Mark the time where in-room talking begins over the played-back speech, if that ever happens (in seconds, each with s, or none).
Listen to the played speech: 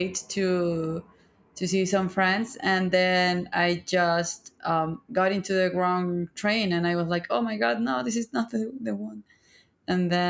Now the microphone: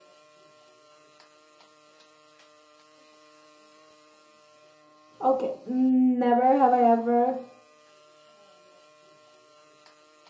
5.2 s